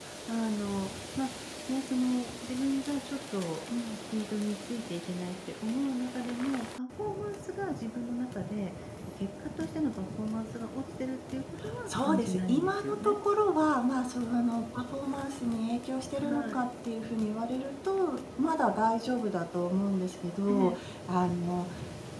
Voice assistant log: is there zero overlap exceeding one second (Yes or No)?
No